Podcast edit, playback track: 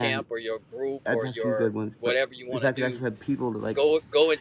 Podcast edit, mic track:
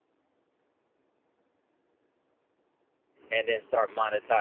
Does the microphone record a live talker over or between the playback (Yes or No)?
Yes